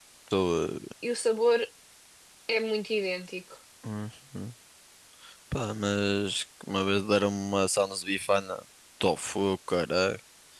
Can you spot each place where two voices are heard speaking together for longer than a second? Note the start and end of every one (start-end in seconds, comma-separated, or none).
none